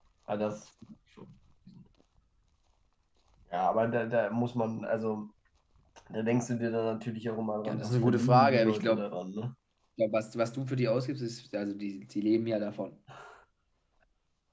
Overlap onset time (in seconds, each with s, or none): 7.6 s